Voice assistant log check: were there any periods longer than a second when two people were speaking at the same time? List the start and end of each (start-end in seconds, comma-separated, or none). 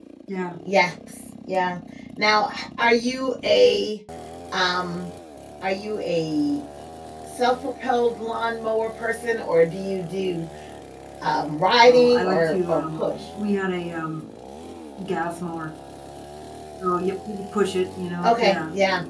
11.9-13.3